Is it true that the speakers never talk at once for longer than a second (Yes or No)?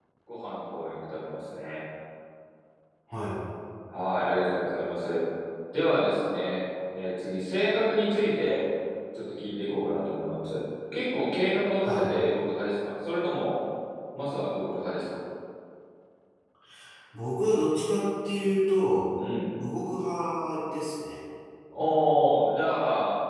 Yes